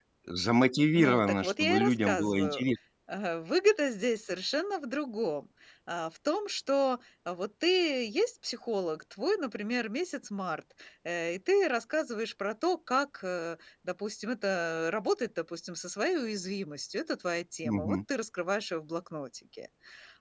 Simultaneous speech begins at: 1 s

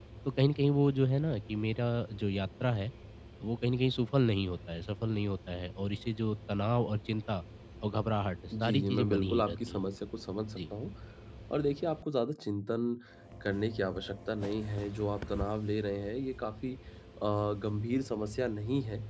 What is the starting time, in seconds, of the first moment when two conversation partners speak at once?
9 s

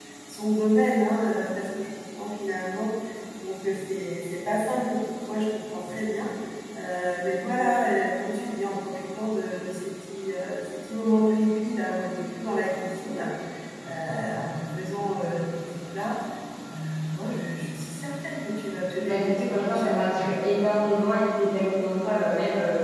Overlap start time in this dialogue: 19 s

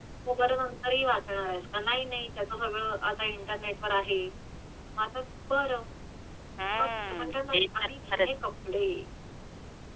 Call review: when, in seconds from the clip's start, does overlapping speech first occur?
7 s

